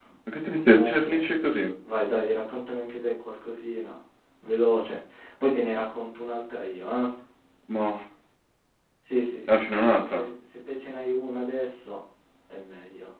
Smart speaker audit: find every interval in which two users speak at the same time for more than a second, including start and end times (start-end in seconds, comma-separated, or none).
none